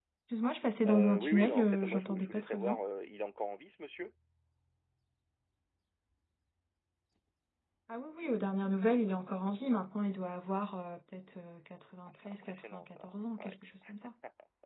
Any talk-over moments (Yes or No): Yes